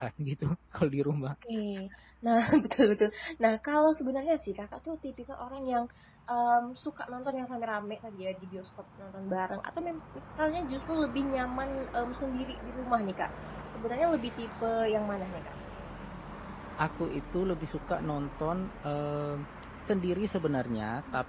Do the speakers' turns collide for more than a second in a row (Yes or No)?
No